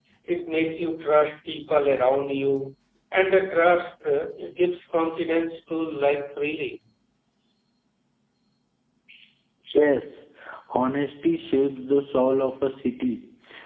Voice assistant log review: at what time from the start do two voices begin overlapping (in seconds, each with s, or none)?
none